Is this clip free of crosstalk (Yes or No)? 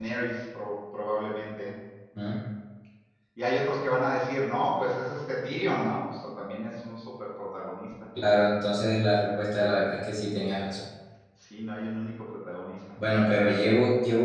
Yes